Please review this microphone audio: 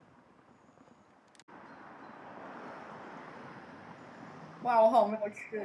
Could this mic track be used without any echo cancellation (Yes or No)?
Yes